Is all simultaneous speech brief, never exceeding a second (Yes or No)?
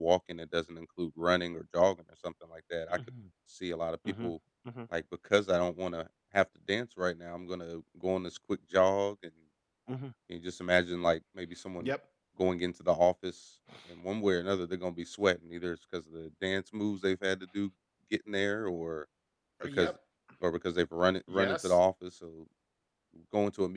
Yes